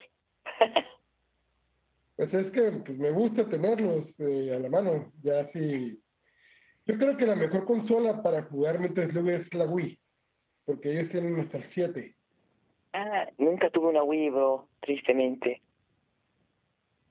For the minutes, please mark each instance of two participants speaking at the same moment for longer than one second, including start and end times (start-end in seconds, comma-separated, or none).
none